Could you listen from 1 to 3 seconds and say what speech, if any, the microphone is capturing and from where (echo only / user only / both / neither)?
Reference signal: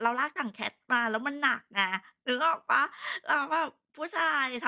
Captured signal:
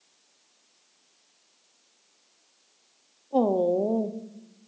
neither